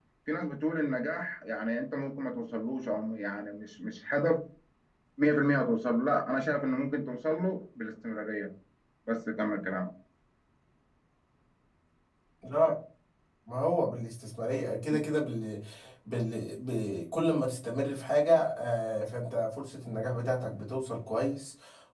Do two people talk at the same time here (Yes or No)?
No